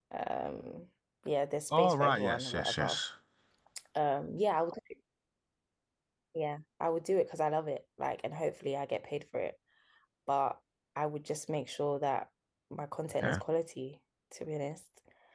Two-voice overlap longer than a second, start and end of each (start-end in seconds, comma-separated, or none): 1.8-3.0